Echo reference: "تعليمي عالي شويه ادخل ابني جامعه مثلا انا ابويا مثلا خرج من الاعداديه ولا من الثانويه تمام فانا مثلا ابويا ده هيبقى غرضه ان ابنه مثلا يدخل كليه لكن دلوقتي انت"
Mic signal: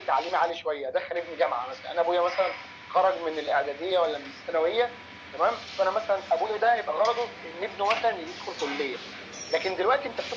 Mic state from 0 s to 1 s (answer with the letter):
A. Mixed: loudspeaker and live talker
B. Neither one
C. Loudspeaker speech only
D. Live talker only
C